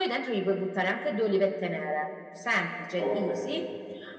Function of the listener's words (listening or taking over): listening